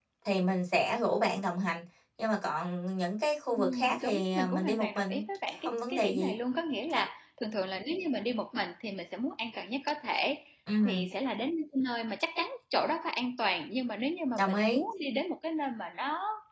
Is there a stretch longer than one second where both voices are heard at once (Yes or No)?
Yes